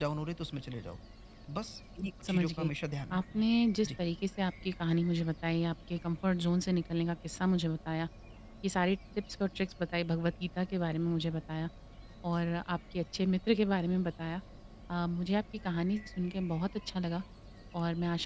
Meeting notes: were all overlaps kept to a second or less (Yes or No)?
Yes